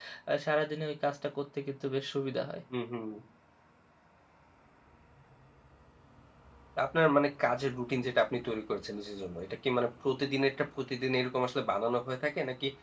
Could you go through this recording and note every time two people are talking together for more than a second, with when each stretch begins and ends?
none

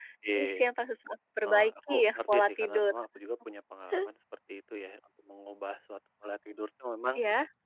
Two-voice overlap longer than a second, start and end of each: 1.4-2.9

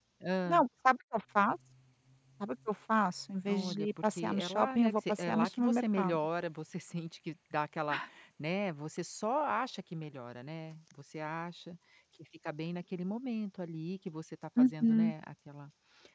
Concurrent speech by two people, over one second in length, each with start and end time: 3.5-6.2

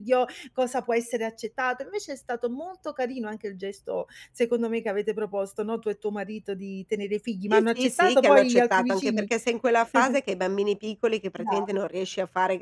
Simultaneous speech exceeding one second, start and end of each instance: 7.5-9.2

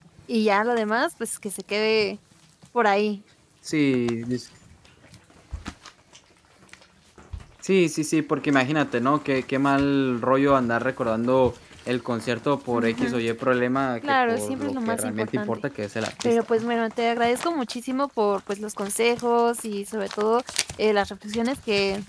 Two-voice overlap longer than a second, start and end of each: 14.1-15.6

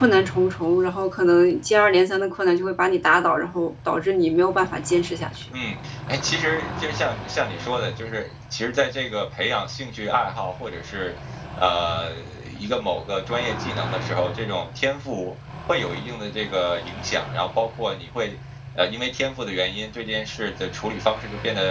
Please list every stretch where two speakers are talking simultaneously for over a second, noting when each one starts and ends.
none

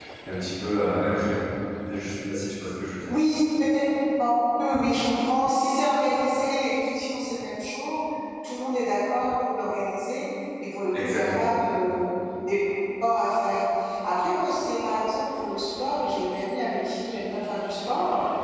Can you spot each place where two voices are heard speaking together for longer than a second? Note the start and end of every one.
none

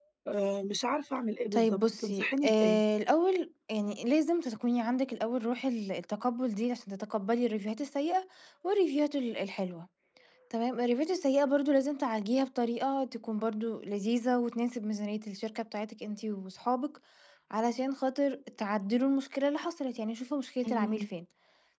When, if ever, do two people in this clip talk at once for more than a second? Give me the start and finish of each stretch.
1.5-2.8

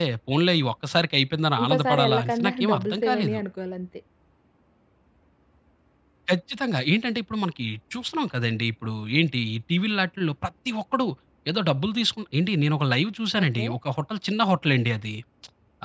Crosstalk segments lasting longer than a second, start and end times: 1.6-3.4

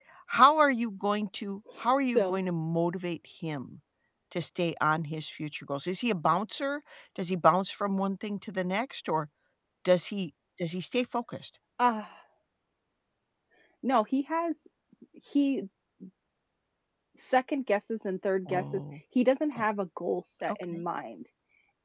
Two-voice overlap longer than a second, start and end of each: none

